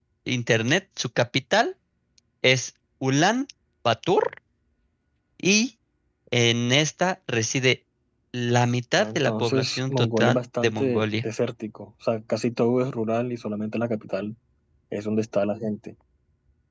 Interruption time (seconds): 9.0 s

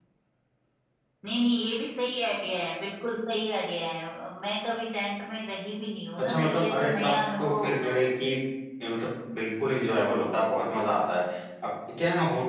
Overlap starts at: 6.2 s

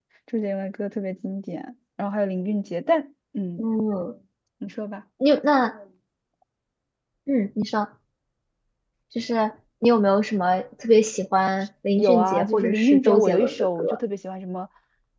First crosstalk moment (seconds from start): 12.0 s

